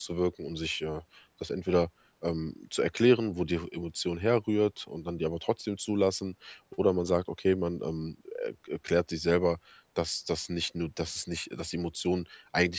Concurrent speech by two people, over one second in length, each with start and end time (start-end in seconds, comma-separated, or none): none